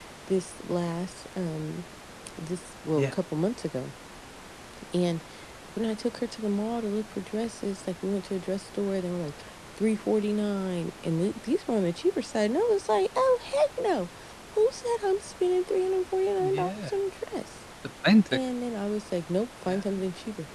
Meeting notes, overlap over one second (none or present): none